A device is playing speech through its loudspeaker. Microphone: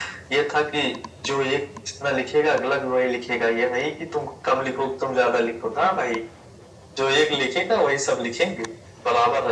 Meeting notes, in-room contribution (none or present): none